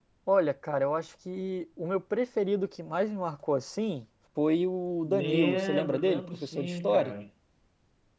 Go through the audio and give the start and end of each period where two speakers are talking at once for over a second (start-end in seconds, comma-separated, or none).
5.1-7.1